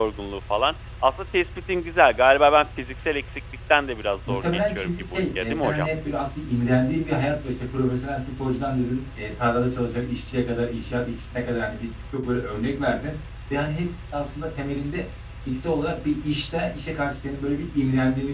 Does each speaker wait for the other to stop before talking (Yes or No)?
No